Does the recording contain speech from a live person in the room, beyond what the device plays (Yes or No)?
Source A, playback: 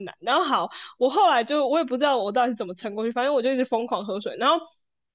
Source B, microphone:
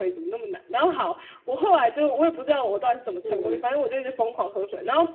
Yes